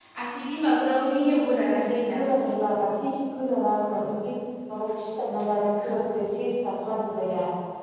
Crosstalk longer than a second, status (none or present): none